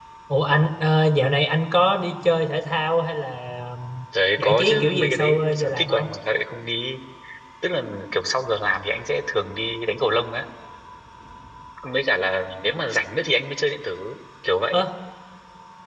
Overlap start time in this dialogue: 4.1 s

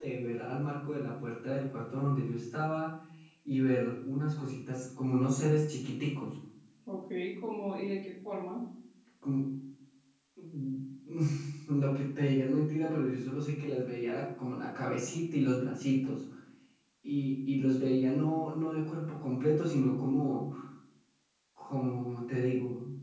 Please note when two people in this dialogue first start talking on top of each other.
none

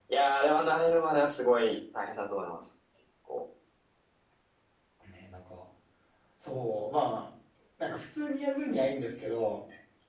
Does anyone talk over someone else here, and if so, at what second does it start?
none

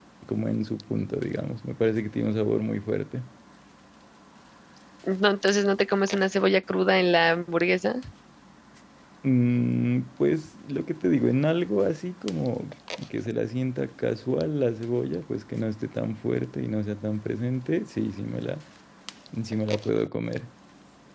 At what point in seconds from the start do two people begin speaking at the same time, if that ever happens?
none

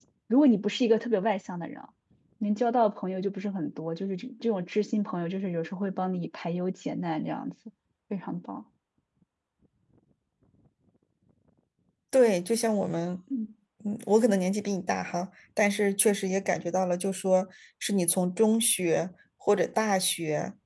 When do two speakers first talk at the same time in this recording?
none

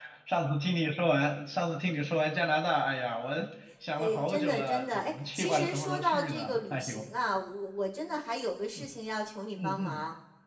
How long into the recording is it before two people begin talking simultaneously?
4.0 s

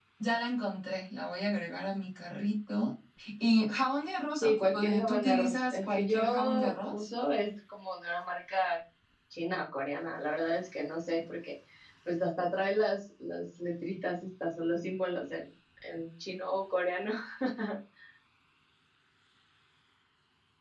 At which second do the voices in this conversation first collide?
4.4 s

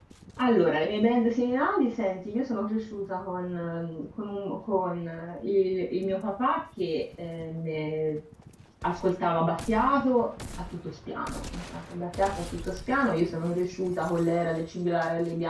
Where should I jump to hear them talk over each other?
none

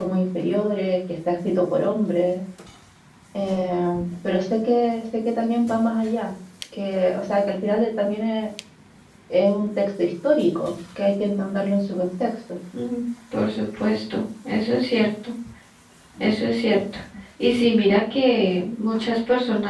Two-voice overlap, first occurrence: none

